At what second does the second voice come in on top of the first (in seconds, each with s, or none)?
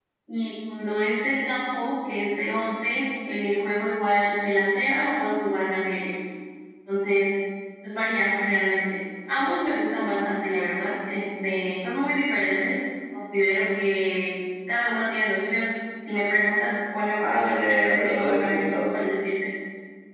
17.2 s